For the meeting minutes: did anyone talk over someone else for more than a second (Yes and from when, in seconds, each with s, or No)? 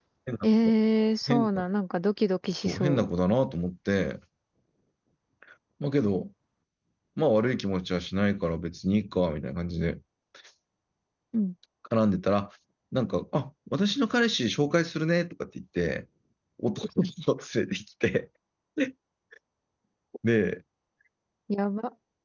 No